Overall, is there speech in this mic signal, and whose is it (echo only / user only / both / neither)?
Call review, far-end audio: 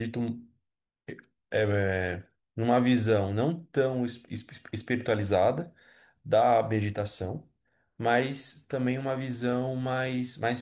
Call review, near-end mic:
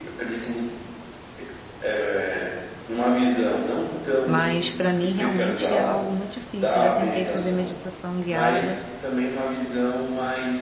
both